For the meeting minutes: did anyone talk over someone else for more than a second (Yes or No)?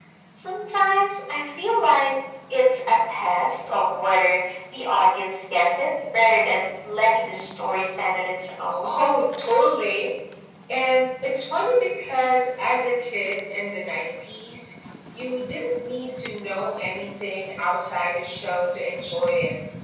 No